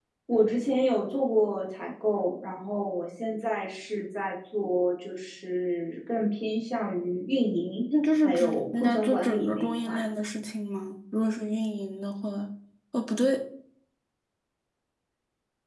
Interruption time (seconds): 8.2 s

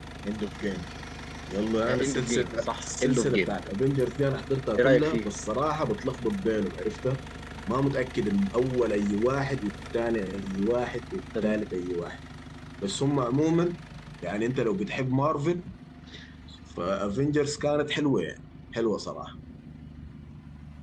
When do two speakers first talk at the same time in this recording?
2.0 s

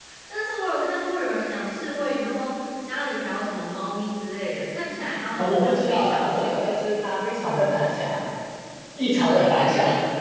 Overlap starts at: 5.4 s

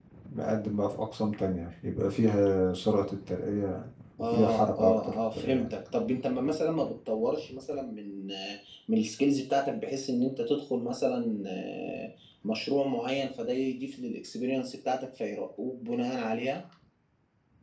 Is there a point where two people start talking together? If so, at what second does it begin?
4.2 s

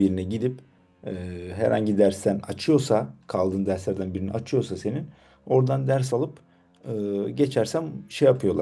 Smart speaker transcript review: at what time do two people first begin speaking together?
none

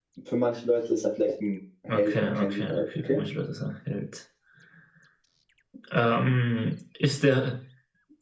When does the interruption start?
1.9 s

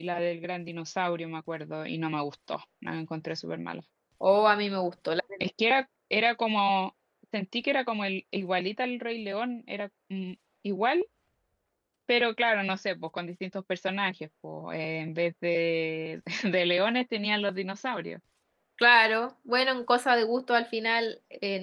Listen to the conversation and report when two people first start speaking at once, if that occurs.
none

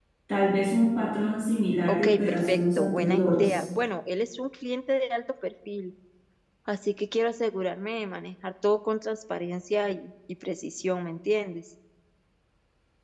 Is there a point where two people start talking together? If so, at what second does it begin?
1.9 s

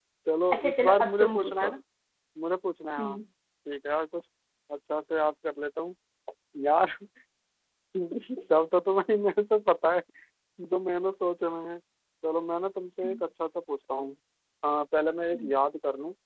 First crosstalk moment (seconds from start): 0.5 s

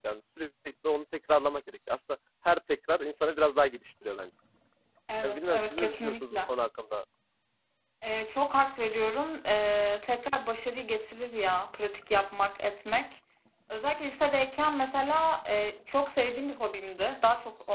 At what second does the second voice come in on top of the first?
5.2 s

